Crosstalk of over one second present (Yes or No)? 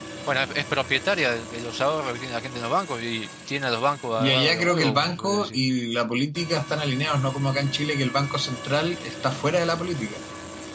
Yes